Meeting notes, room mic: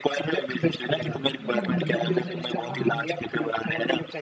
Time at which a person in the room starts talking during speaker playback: 0.8 s

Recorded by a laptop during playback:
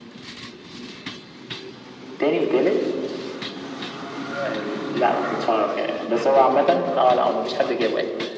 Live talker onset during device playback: none

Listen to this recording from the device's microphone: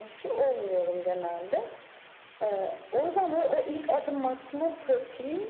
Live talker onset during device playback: none

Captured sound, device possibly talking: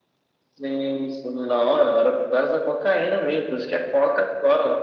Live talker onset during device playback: none

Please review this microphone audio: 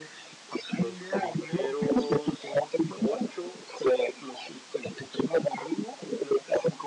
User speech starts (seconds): 0.7 s

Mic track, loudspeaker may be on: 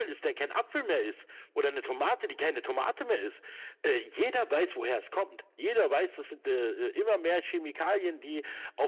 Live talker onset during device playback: none

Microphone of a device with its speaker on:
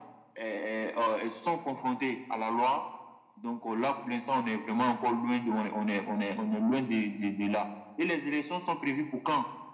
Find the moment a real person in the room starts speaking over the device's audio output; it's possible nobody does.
none

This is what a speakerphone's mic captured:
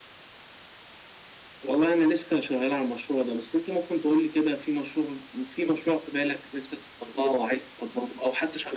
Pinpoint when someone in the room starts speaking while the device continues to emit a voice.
none

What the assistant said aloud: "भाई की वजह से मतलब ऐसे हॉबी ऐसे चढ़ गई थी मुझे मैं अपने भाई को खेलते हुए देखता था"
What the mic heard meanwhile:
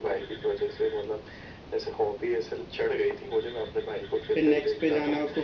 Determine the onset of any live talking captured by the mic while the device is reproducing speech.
4.3 s

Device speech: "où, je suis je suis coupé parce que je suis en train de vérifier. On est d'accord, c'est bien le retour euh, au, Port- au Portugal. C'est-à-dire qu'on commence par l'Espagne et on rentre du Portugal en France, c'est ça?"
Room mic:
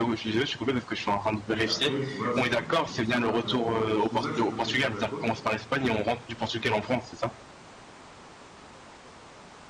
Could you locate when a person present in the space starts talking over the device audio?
1.5 s

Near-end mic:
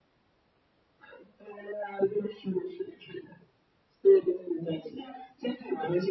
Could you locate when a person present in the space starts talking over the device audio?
none

